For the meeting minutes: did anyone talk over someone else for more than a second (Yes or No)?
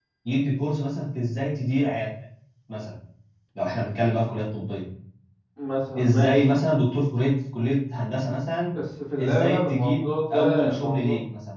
Yes